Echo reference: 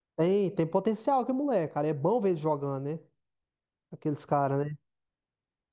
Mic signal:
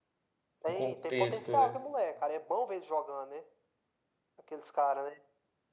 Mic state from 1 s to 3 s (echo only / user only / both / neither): both